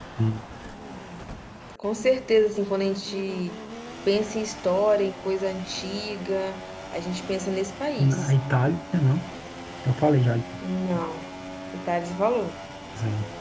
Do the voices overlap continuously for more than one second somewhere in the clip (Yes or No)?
No